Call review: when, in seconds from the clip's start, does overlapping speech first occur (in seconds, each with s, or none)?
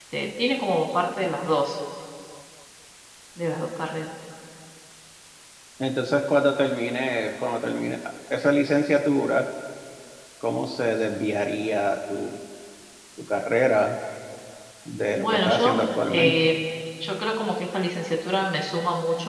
15.2 s